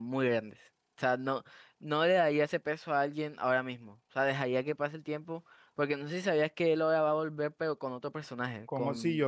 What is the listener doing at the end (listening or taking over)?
taking over